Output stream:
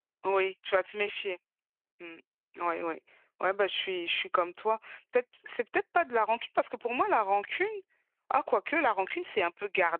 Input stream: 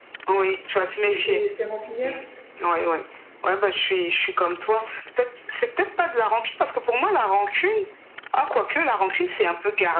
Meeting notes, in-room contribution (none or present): present